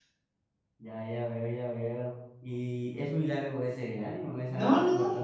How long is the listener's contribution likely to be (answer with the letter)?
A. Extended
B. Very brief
A